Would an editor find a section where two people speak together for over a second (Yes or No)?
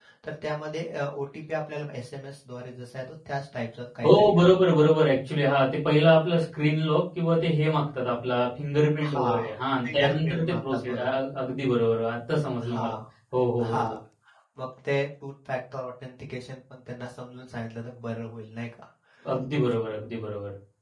Yes